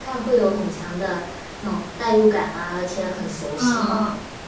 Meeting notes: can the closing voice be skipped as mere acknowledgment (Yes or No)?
No